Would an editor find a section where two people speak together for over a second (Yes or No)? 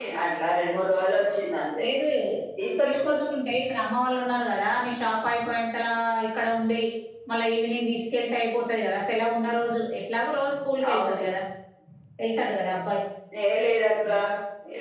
No